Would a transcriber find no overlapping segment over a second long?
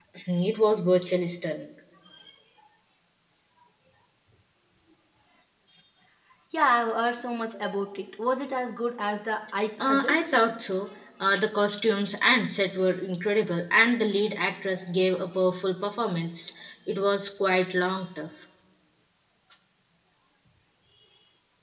Yes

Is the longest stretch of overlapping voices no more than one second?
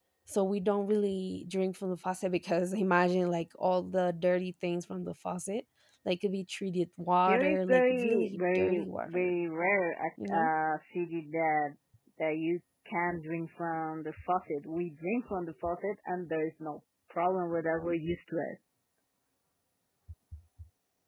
No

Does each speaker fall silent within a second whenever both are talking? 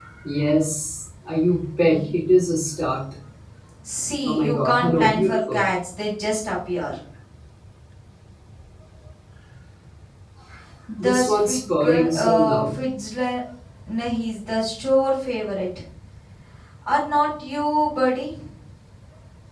No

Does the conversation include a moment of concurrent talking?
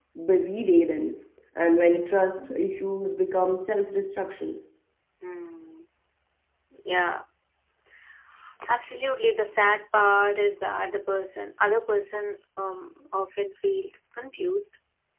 No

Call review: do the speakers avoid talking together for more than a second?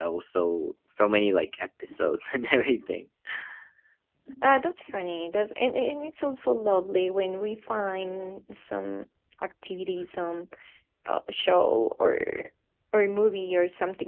Yes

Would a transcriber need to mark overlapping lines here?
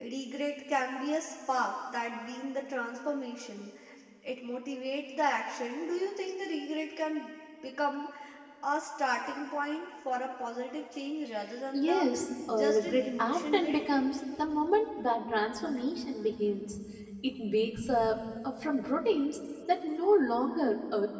Yes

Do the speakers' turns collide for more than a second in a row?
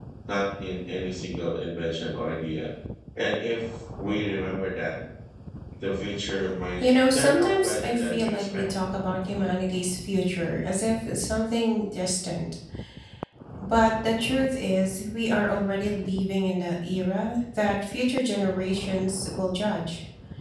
Yes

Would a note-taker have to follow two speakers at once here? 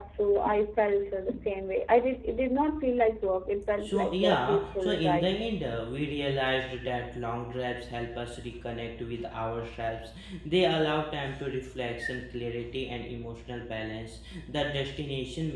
Yes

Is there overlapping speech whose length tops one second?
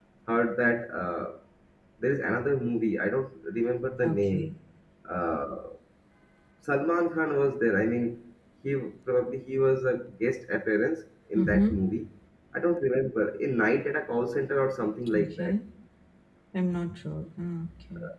No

